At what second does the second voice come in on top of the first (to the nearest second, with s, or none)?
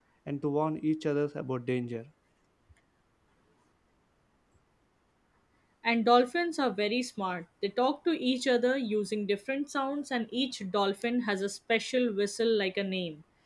none